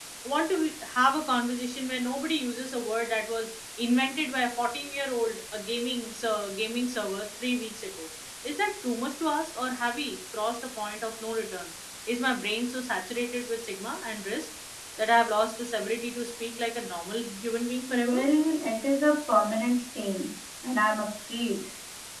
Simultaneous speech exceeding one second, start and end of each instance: none

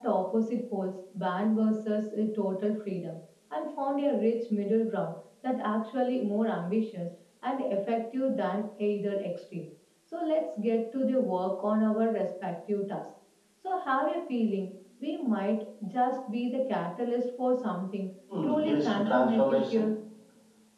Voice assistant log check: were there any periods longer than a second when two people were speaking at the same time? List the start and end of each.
18.4-19.9

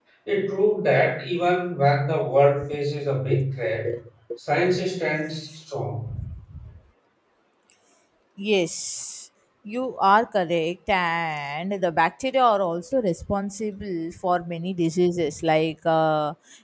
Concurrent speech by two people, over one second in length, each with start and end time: none

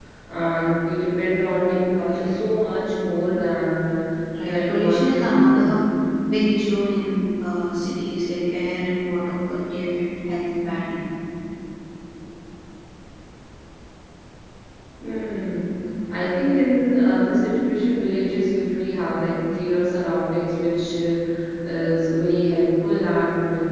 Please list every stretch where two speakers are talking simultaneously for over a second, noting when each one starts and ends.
4.4-5.7

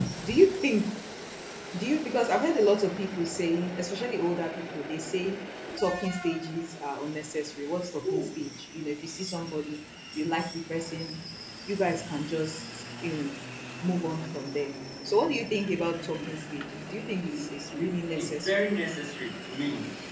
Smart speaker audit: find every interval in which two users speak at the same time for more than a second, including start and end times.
17.3-18.6

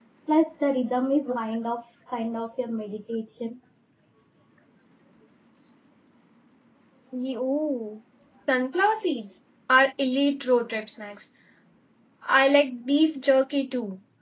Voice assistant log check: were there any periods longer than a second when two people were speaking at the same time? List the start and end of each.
none

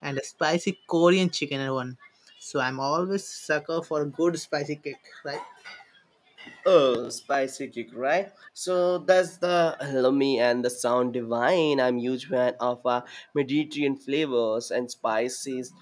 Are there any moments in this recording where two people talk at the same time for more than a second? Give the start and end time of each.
none

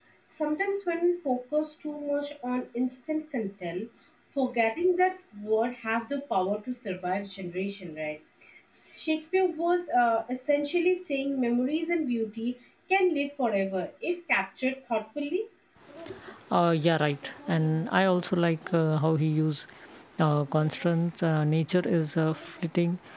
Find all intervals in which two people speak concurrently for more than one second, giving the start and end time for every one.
none

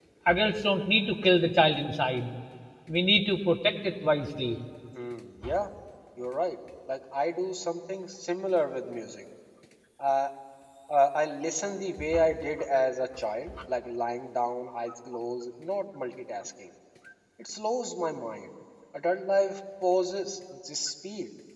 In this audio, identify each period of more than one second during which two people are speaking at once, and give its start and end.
none

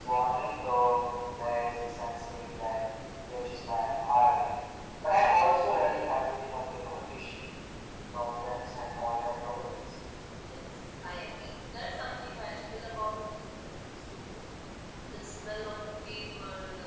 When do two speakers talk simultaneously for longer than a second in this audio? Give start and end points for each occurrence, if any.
none

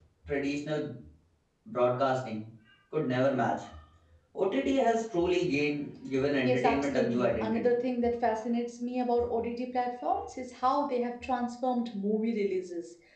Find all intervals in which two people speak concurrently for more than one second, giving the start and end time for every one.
6.4-7.7

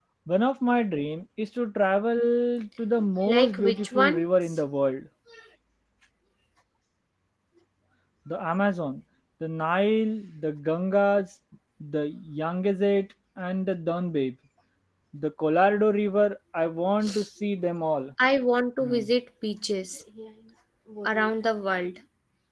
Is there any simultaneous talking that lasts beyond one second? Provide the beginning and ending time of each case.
3.2-4.6

